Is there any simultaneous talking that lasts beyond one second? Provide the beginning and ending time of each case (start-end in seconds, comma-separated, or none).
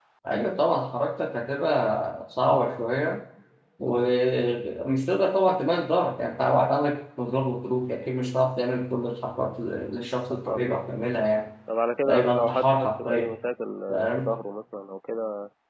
12.0-13.4